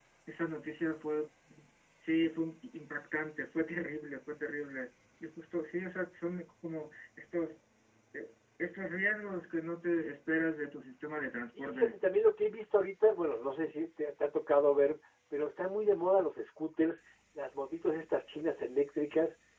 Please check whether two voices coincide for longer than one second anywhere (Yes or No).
No